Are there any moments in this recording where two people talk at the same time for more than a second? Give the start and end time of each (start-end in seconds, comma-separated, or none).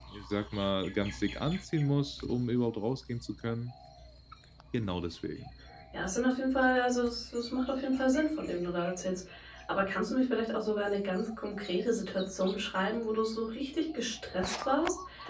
none